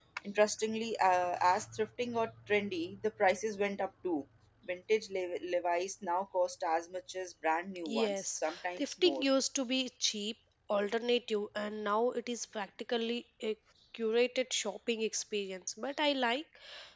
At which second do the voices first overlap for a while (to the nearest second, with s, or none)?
8 s